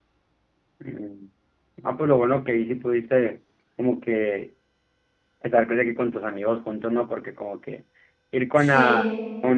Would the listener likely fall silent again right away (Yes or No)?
Yes